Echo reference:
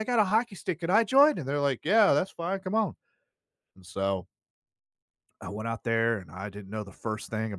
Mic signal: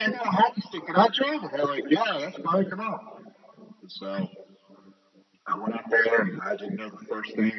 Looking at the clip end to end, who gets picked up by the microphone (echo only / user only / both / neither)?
echo only